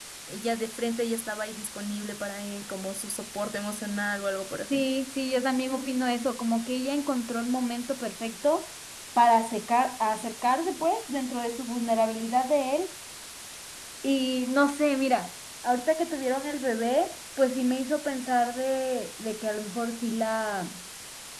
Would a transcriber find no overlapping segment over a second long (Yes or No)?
Yes